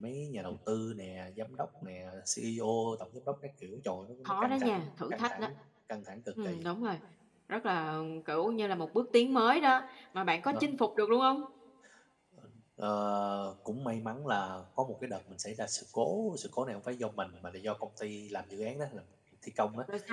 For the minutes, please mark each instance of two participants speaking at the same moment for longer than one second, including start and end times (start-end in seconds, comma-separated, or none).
4.2-5.5